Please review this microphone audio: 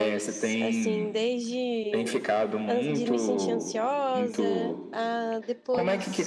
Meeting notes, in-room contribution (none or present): present